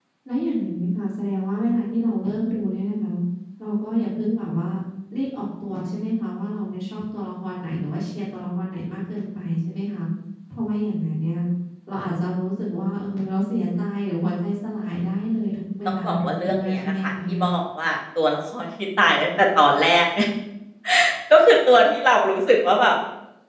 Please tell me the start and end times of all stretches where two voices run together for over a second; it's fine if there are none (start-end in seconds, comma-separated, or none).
15.8-17.4